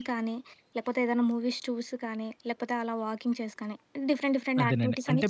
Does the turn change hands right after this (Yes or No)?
Yes